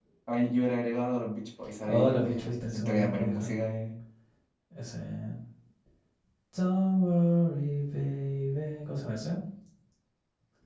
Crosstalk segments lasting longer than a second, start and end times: 1.9-3.5

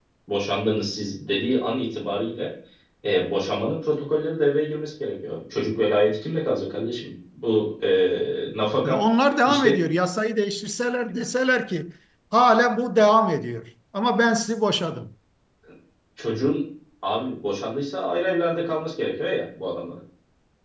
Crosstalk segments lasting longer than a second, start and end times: none

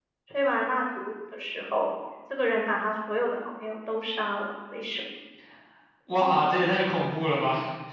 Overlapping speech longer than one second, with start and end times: none

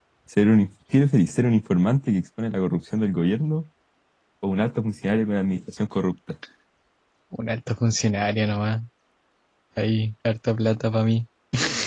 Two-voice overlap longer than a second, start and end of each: none

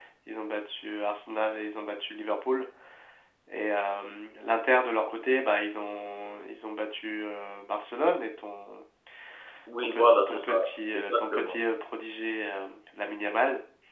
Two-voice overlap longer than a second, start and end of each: 9.8-11.5

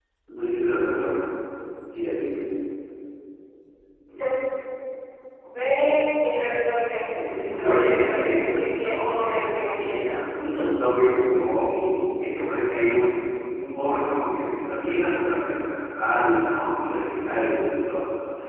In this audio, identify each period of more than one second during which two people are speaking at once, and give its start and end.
7.5-10.0

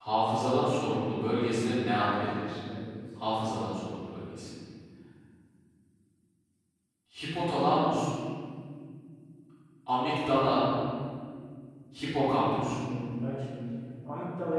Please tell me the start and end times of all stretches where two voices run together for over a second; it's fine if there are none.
none

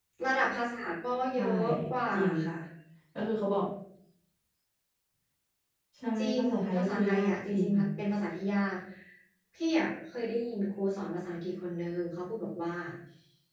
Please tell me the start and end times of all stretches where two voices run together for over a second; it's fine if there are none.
6.2-7.7

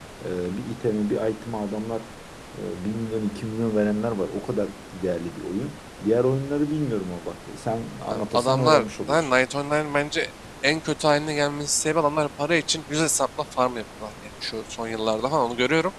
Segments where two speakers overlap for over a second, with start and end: 8.1-9.3

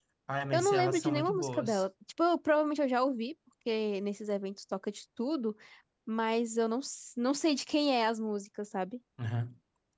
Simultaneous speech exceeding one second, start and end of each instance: 0.5-1.8

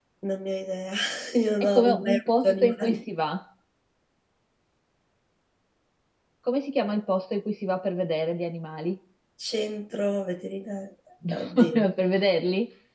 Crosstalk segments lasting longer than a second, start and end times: 1.6-3.0

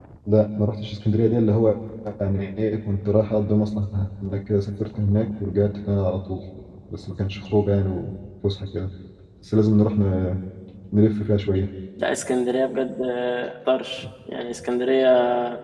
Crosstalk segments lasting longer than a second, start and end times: none

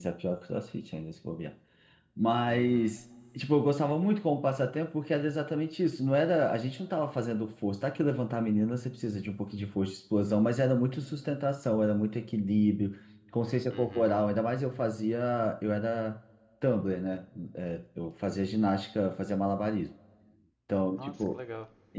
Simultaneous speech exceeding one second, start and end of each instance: none

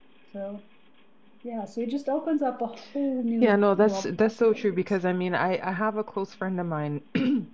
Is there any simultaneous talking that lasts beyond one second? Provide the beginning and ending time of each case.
3.4-4.8

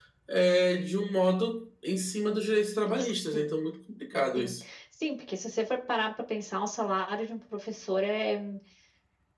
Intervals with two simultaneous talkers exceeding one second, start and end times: none

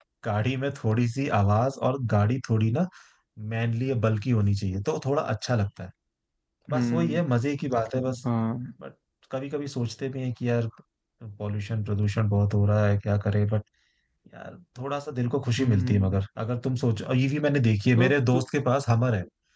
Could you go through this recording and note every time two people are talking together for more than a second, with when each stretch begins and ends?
none

